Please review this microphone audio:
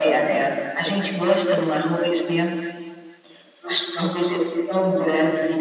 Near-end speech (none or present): none